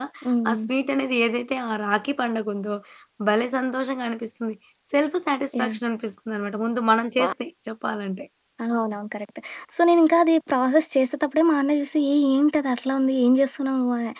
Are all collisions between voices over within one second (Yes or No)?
Yes